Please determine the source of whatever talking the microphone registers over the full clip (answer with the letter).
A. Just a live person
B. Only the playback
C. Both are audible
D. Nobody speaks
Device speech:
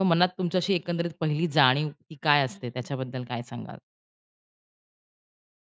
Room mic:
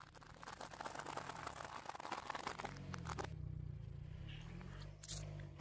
D